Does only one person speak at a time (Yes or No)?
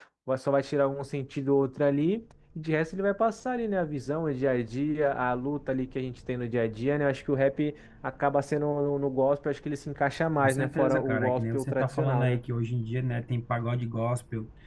No